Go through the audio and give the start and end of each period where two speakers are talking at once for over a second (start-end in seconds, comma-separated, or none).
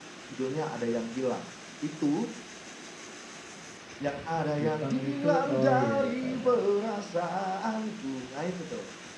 4.6-6.6